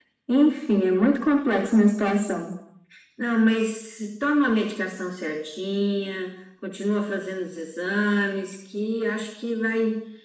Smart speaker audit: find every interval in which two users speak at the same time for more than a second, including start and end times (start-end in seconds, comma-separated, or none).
none